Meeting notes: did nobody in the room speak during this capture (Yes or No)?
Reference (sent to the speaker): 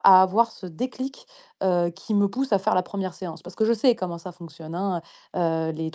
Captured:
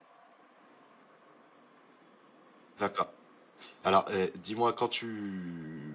No